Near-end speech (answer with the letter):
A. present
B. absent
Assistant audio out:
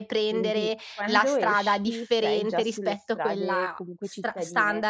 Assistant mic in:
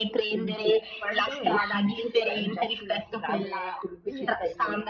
A